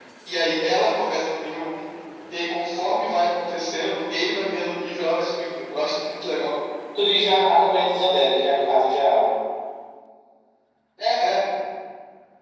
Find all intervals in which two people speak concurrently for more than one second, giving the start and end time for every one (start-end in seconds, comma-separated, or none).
none